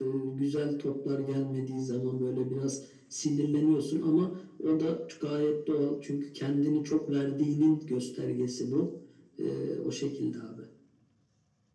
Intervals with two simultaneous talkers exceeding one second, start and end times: none

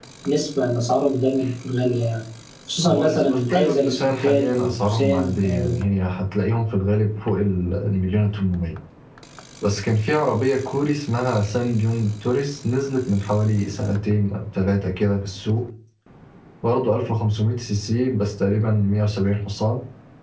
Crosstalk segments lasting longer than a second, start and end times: 2.8-5.8

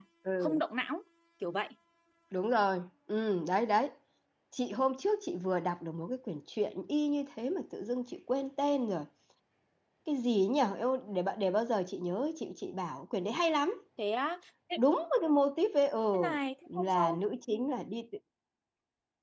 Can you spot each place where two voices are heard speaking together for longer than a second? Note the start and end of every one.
none

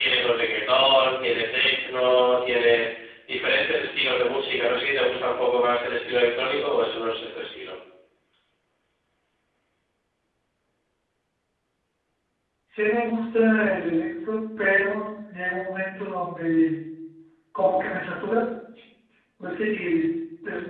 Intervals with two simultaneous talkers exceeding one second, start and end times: none

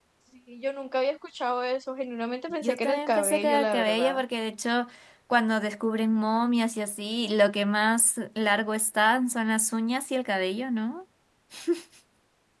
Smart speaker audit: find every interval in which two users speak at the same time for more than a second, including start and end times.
2.6-4.2

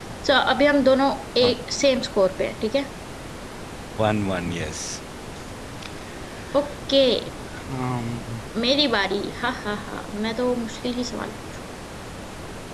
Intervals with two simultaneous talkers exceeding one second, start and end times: none

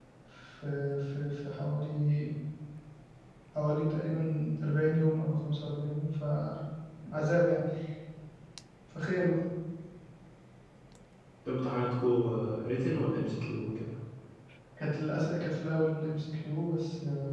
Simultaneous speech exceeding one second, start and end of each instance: none

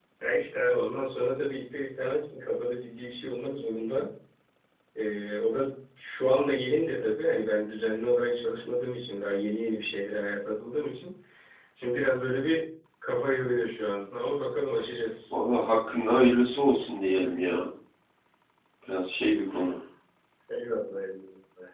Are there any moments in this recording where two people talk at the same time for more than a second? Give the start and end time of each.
none

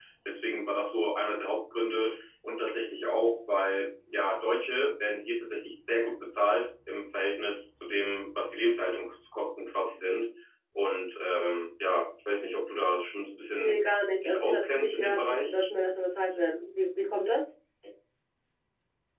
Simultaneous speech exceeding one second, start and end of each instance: 14.2-15.5

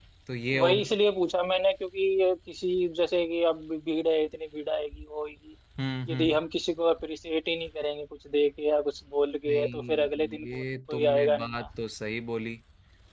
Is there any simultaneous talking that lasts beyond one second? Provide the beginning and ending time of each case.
9.5-11.6

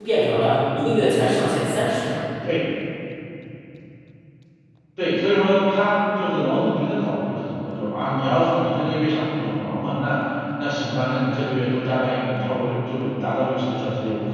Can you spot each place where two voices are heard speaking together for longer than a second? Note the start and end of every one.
none

